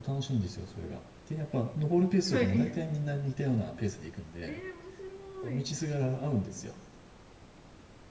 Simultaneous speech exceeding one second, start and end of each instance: none

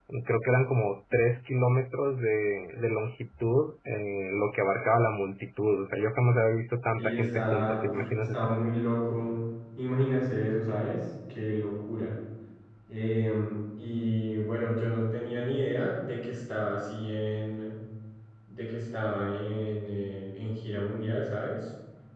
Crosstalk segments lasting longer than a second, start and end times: 7.0-8.6

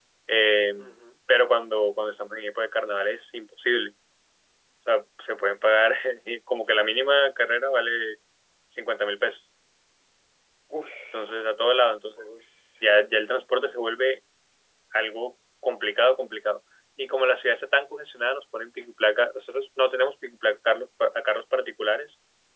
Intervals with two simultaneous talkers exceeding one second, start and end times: none

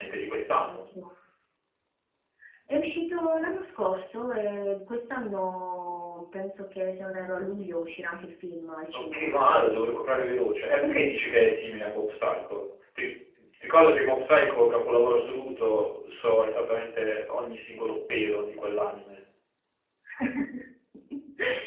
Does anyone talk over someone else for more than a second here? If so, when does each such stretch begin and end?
none

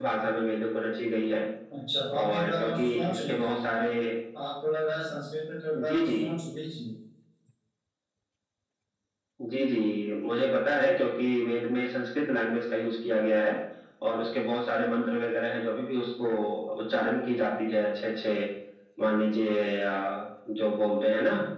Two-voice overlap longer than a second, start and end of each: 2.2-3.6

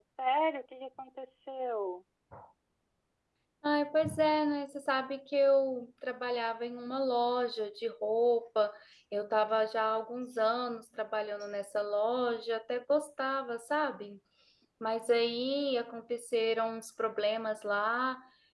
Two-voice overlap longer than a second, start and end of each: none

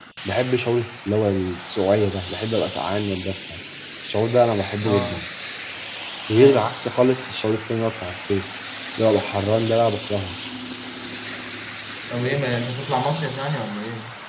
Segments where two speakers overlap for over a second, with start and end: none

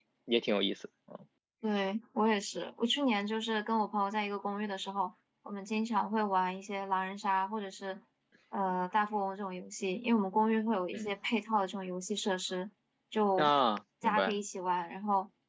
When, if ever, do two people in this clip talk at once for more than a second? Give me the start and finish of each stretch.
none

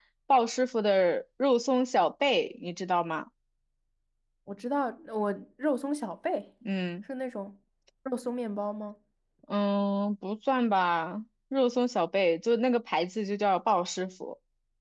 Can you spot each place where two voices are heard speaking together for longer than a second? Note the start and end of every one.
none

